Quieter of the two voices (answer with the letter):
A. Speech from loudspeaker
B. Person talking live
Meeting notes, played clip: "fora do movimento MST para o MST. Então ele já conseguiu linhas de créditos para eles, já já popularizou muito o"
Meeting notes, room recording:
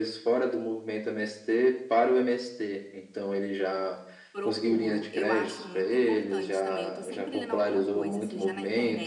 B